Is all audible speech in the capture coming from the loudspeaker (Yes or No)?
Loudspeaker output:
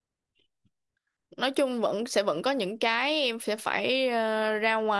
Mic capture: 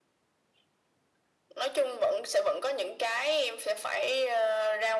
Yes